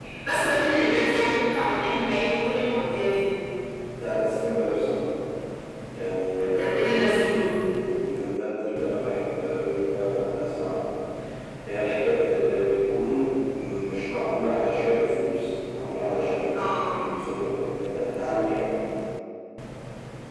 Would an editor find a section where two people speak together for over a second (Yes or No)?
No